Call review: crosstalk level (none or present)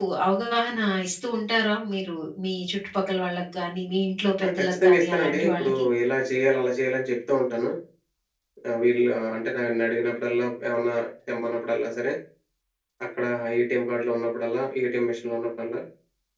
present